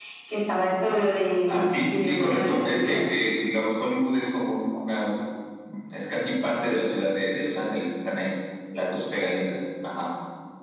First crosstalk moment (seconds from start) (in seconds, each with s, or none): 1.5 s